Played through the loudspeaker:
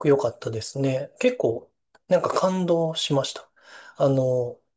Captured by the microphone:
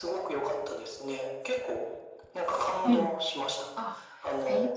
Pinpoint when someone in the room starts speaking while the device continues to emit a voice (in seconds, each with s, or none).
2.8 s